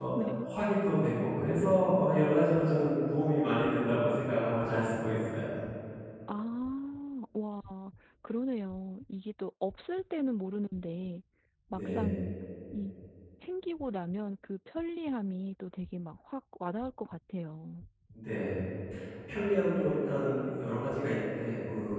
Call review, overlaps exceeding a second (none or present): none